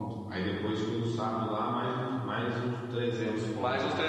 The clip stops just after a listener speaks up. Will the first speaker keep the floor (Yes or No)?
No